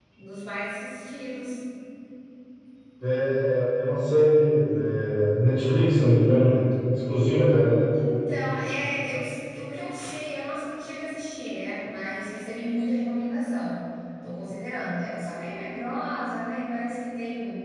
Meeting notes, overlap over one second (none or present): none